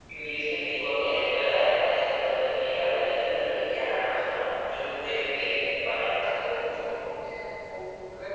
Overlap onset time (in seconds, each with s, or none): none